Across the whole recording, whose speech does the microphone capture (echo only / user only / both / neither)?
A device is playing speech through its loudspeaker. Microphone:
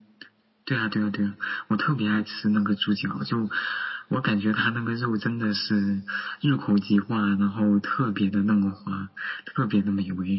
echo only